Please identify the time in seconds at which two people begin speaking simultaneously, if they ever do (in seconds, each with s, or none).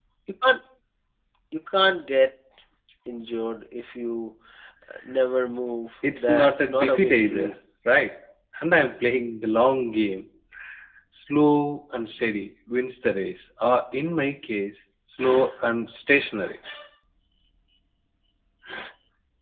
6.0 s